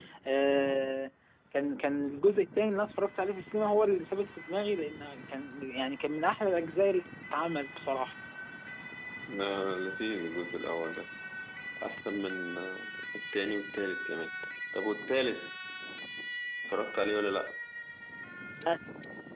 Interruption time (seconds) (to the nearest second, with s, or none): none